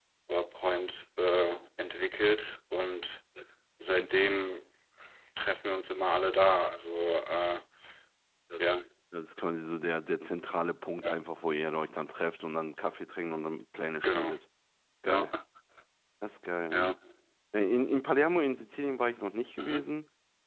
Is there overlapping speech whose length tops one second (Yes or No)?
No